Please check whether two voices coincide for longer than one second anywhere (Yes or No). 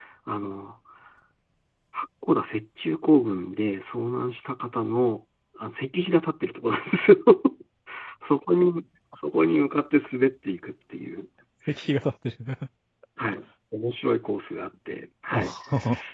No